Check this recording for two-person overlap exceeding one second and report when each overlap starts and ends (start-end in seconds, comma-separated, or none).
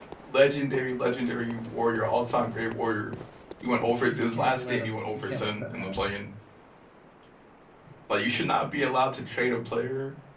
4.1-5.9